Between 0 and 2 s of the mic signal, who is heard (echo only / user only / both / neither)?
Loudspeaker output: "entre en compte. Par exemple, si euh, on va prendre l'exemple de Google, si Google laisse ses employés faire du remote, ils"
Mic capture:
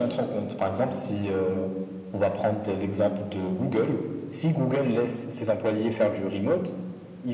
echo only